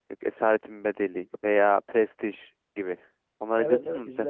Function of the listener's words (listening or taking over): taking over